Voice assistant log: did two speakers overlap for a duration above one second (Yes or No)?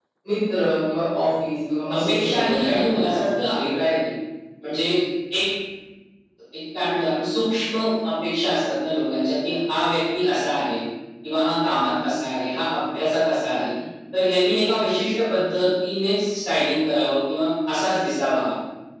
Yes